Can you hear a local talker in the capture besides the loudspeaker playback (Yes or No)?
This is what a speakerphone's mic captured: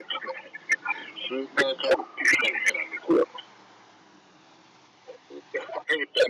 No